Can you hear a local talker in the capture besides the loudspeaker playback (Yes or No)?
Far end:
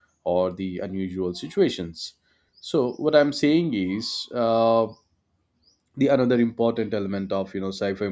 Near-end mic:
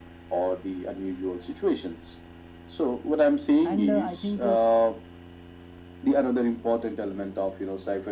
Yes